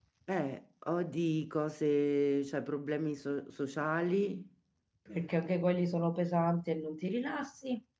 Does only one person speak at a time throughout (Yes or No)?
Yes